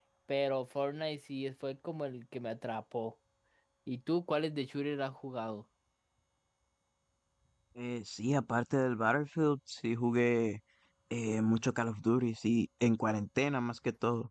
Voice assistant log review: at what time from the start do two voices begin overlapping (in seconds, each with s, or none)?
none